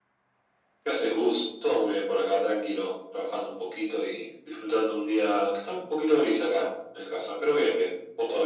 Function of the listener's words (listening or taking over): taking over